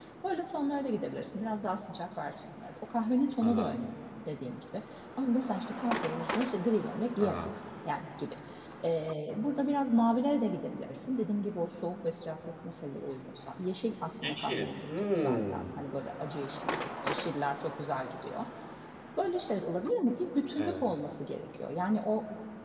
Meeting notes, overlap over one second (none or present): present